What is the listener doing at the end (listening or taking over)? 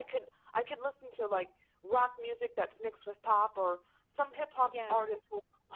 listening